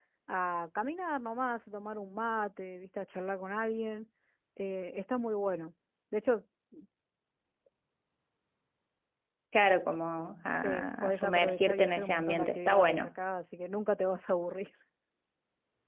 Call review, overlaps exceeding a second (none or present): present